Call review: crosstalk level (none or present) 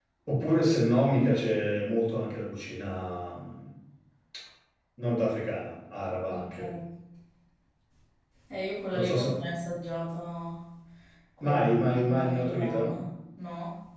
present